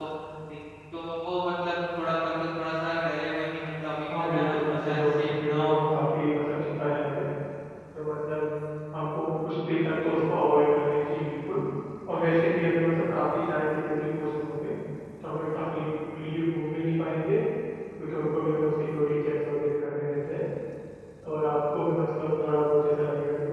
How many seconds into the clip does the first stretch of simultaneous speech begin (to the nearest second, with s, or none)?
4 s